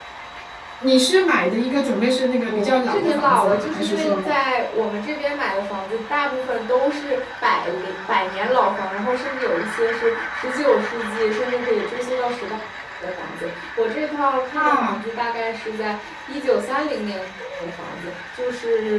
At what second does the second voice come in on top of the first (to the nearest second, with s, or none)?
3 s